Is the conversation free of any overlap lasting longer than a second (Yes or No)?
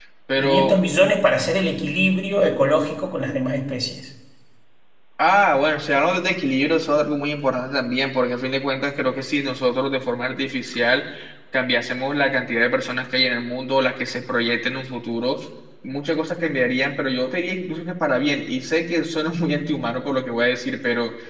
Yes